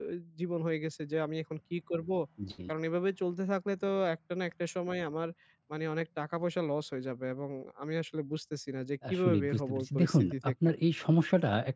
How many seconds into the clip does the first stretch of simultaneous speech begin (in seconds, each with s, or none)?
9.0 s